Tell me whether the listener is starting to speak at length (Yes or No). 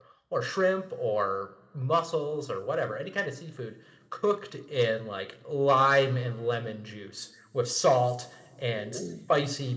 No